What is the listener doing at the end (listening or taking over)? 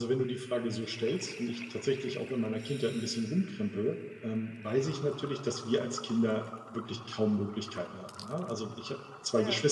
listening